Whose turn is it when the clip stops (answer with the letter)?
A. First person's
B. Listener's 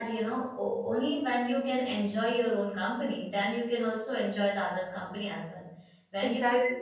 A